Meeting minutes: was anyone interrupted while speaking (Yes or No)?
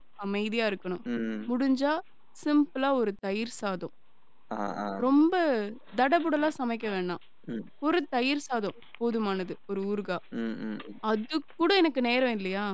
No